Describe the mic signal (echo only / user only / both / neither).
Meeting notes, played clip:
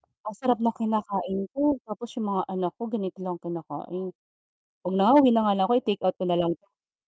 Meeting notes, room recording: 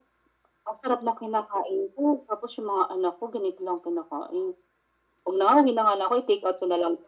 echo only